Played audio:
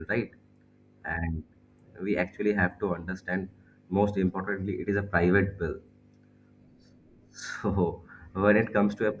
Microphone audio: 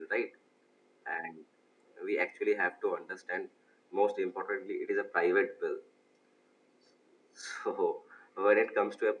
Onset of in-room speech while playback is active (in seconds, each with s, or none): none